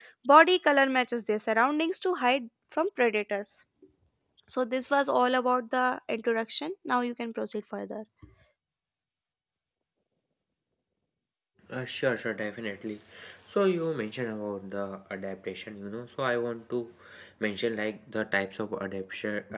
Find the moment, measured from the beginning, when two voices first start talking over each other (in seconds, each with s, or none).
none